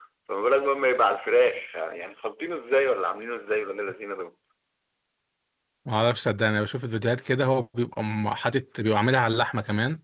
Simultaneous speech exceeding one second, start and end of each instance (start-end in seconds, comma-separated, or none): none